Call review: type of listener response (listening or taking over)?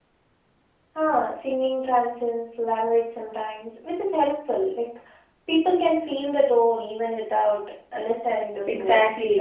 taking over